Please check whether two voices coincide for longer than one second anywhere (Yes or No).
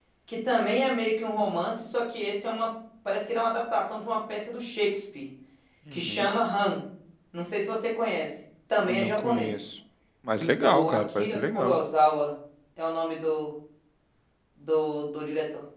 Yes